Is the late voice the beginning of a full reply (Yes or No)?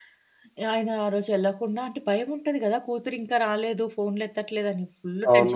Yes